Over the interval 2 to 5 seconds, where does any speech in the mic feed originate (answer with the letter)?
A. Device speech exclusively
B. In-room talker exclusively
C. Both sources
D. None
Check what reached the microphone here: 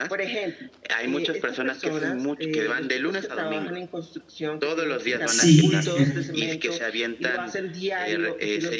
A